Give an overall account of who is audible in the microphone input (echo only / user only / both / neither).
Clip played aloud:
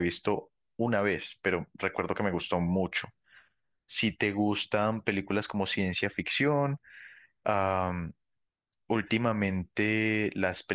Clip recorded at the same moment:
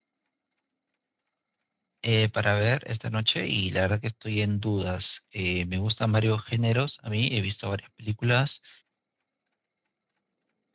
user only